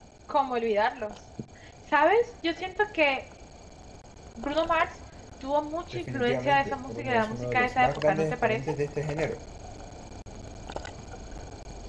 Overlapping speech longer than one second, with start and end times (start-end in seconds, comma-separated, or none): 5.9-8.6